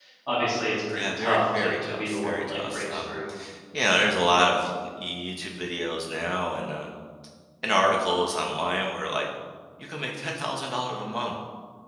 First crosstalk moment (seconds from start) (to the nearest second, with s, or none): 1 s